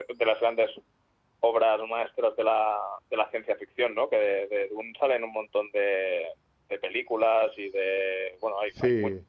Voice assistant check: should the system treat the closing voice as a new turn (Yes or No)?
No